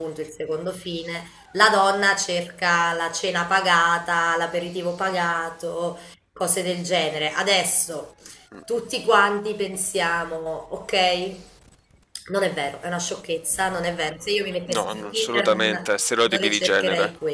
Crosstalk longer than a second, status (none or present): present